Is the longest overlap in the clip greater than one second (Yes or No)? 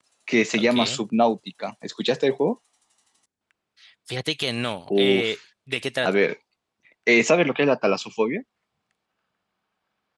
No